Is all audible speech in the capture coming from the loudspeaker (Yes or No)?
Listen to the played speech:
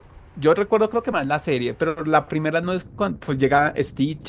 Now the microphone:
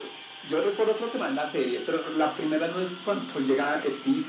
Yes